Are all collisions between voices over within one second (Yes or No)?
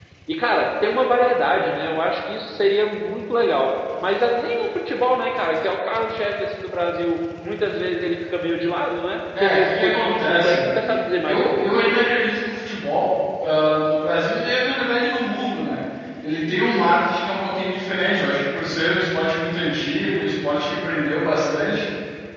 No